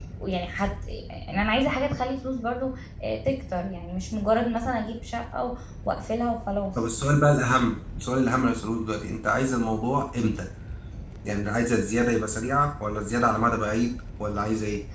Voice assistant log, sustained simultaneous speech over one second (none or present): none